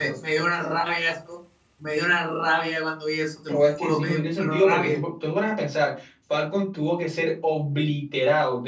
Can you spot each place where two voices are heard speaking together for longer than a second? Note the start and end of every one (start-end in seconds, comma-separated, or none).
3.5-5.0